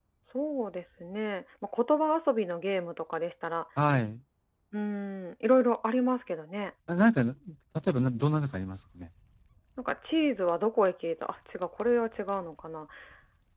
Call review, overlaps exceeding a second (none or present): none